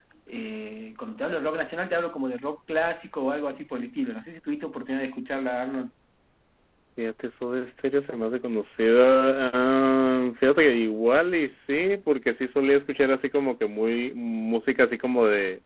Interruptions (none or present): none